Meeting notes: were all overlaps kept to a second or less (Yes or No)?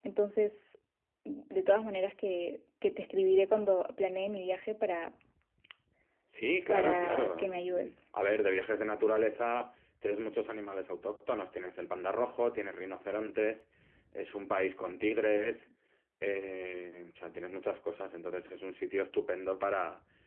No